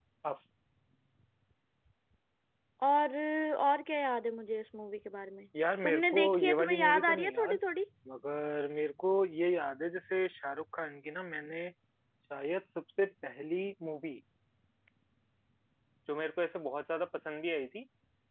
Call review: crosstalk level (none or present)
present